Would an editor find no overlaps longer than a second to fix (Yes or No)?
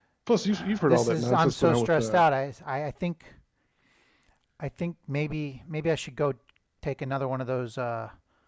No